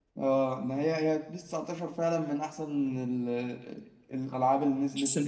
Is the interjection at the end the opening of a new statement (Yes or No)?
Yes